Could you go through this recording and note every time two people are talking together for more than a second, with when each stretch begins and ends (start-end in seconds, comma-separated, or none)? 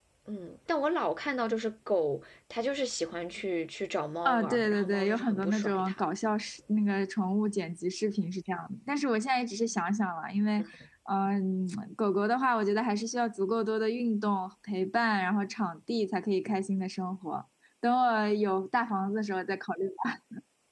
4.2-6.0